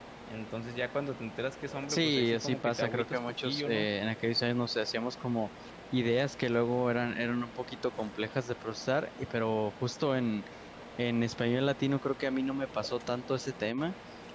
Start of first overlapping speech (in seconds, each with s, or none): 1.9 s